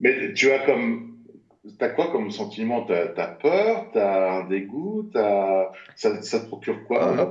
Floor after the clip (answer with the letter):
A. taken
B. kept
A